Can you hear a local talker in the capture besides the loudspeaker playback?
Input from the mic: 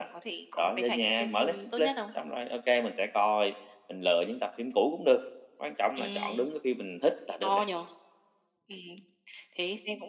No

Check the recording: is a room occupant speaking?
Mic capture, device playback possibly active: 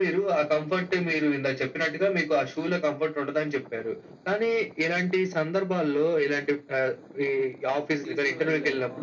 Yes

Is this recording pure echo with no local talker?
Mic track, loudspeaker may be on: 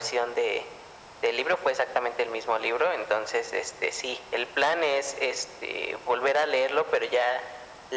Yes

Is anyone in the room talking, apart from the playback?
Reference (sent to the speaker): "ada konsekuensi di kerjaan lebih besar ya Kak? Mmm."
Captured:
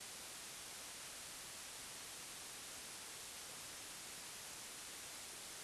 No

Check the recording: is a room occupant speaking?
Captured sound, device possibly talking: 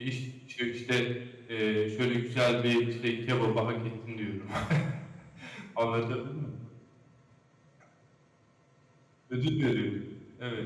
Yes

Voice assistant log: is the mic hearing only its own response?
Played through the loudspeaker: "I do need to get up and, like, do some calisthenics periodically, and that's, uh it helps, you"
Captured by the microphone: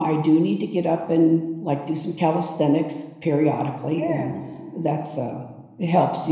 No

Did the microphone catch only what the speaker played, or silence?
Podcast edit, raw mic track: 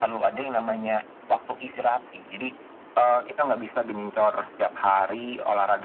Yes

